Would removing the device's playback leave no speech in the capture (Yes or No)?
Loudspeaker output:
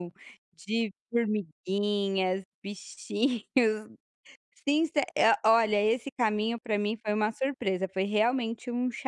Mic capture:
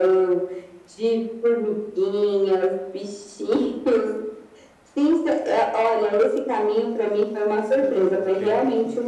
No